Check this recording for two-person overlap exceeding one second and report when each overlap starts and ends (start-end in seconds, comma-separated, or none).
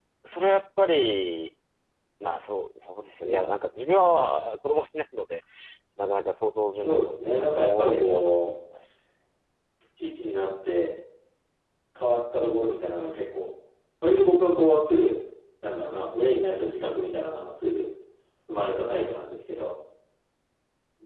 6.8-8.3